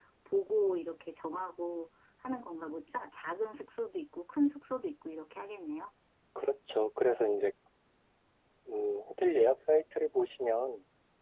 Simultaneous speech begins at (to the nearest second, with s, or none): none